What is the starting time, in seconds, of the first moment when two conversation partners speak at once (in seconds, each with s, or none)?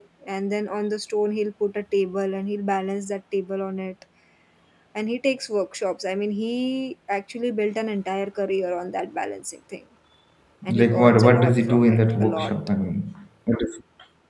10.7 s